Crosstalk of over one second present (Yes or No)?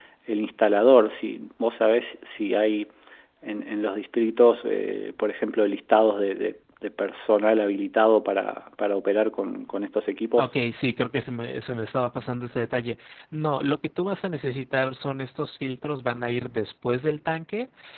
No